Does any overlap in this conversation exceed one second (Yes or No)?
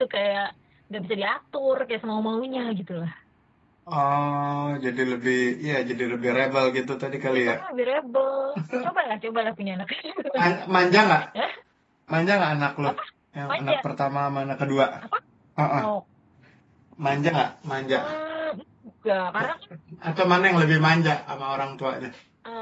No